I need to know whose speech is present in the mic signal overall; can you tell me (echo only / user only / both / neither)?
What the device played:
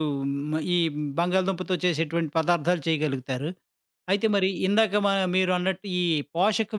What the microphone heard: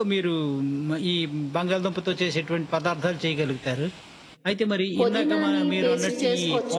both